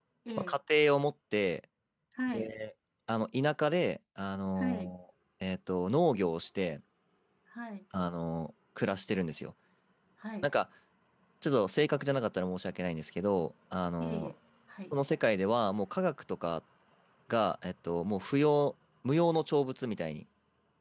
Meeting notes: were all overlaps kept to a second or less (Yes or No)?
Yes